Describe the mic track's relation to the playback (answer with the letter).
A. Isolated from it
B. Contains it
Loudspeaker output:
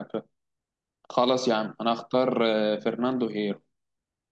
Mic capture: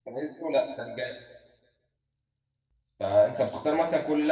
A